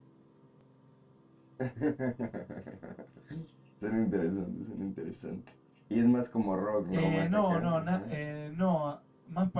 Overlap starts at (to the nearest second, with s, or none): 7 s